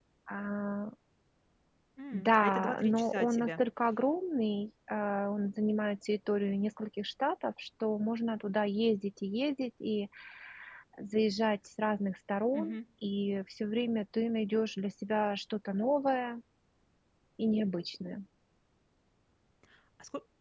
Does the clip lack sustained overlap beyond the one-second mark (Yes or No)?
No